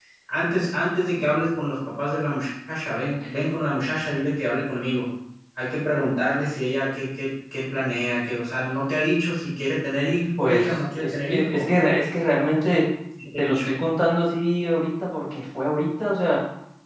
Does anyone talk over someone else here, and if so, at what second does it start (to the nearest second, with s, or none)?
10 s